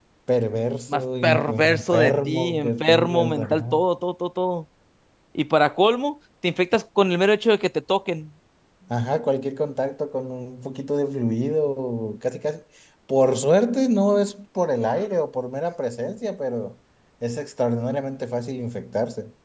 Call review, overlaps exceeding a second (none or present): present